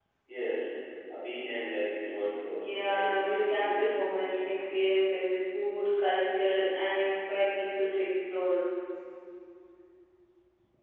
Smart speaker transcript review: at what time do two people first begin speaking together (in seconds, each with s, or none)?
2.6 s